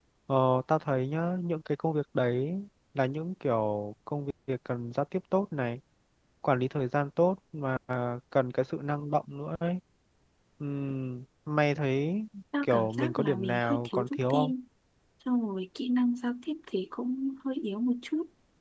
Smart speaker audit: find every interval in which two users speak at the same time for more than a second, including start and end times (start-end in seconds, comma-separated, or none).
12.6-14.5